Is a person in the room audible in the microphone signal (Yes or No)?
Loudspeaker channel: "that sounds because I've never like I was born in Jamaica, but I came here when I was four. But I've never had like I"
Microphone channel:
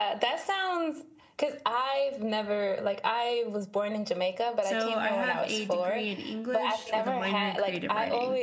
Yes